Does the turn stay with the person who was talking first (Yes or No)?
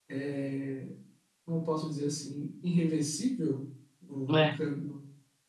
Yes